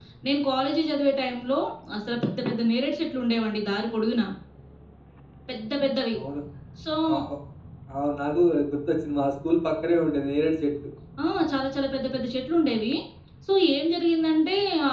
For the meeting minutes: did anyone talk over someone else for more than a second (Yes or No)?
No